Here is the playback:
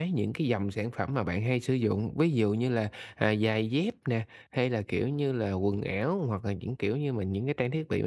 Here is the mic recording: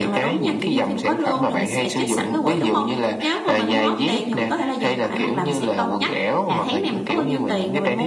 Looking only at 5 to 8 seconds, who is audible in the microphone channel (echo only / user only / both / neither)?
both